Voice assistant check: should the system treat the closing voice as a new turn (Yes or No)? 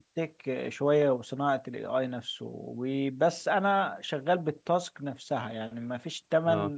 No